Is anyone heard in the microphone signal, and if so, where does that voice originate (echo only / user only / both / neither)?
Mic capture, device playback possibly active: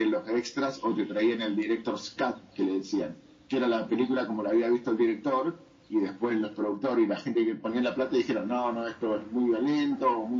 echo only